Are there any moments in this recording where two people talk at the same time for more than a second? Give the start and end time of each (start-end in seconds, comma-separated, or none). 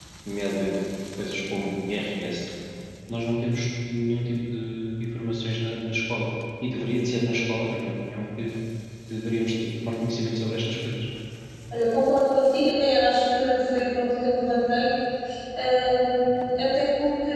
none